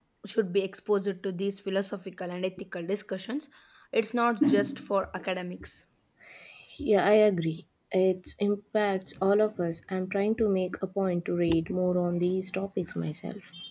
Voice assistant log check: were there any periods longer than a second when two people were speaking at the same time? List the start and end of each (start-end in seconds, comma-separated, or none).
none